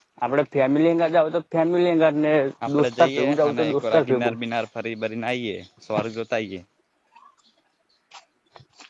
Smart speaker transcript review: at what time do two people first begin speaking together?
3 s

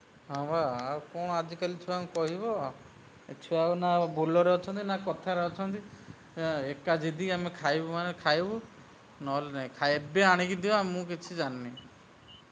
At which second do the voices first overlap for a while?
none

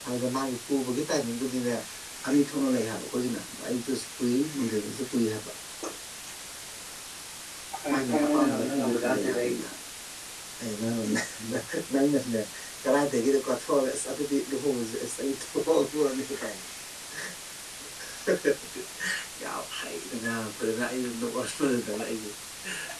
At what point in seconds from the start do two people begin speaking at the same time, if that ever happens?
8 s

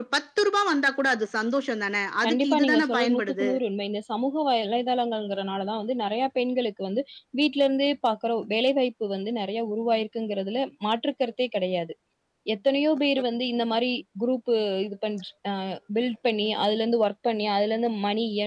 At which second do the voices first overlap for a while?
2 s

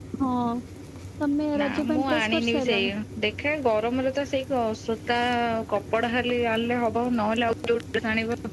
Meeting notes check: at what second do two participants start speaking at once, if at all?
2 s

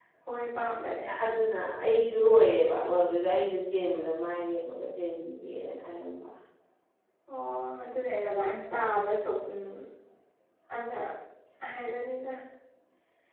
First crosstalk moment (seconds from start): none

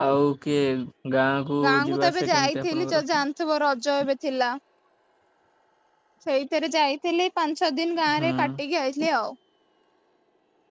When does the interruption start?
2 s

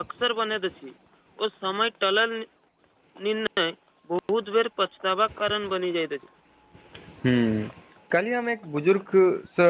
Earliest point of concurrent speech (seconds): none

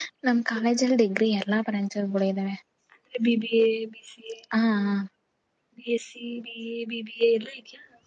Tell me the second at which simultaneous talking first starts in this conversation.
none

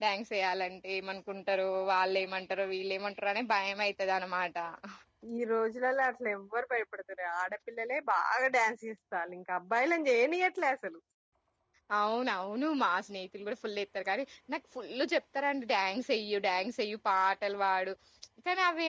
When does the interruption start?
none

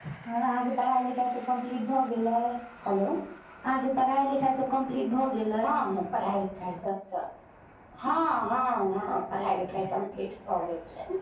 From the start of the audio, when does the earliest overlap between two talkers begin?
none

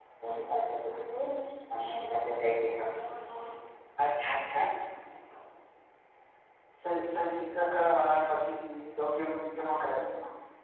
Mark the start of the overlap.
none

